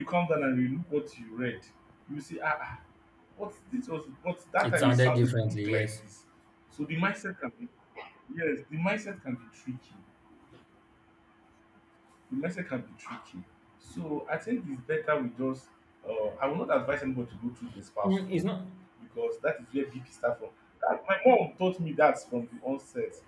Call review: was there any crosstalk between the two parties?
Yes, from 4.6 s

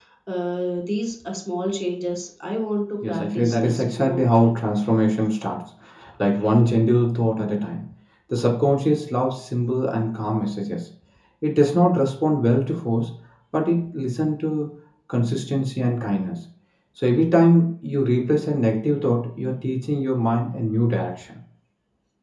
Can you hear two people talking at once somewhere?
Yes, from 3.0 s

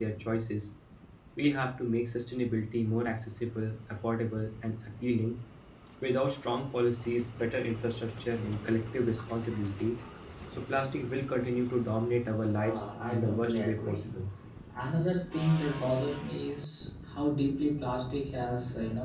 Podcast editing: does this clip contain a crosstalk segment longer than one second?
Yes, from 12.6 s

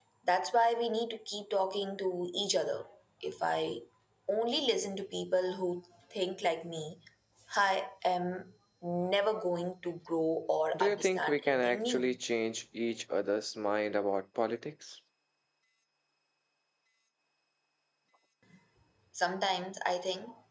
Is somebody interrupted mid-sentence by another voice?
Yes, from 10.7 s

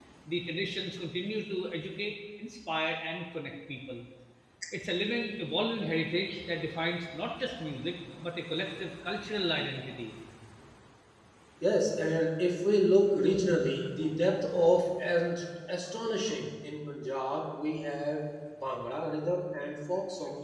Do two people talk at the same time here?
No

